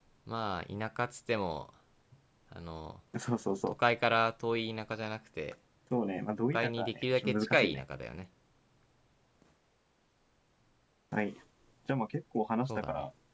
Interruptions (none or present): present